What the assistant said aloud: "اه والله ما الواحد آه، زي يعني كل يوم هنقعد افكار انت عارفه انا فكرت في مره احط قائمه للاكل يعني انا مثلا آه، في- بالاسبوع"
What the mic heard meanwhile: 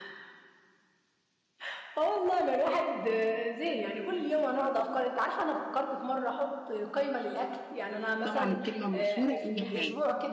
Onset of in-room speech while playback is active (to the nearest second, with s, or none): 8 s